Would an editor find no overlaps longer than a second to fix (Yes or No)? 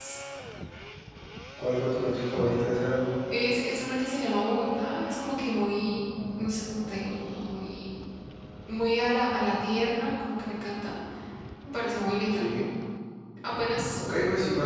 Yes